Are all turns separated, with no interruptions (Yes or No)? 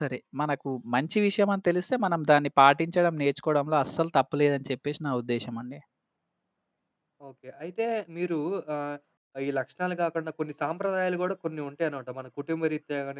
Yes